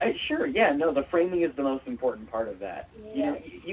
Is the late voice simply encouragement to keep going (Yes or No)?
Yes